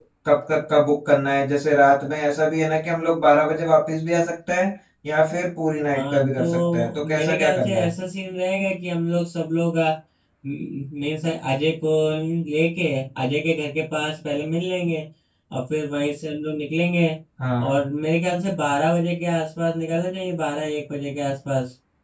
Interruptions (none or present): present